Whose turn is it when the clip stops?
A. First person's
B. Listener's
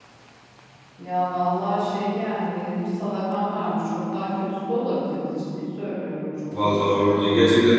B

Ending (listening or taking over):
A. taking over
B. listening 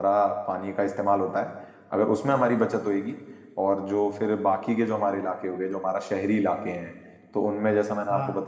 B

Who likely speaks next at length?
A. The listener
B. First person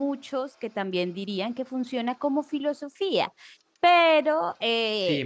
A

